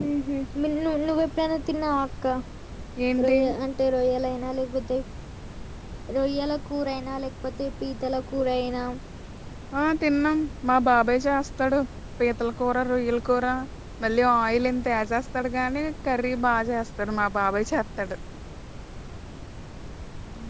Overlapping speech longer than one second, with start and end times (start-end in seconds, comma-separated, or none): none